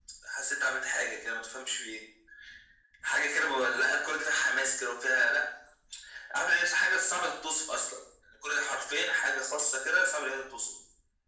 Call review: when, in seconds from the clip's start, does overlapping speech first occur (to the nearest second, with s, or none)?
none